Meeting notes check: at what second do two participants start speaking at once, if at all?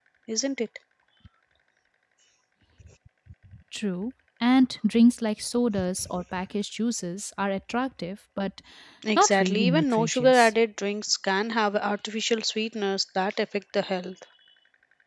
9.2 s

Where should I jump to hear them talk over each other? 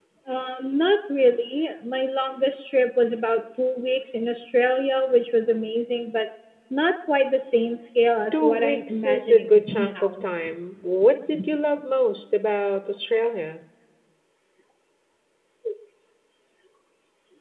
8.3 s

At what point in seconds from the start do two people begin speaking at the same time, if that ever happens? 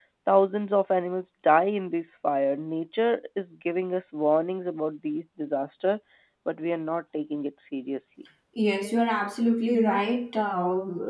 none

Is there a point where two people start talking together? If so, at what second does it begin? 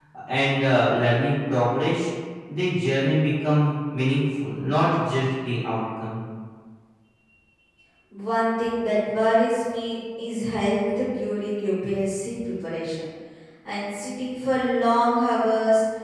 none

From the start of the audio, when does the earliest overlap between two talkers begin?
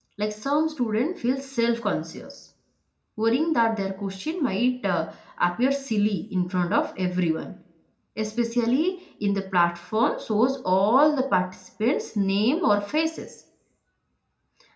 none

